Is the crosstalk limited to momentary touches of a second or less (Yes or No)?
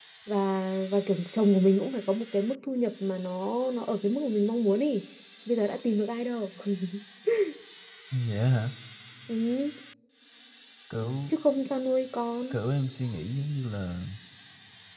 Yes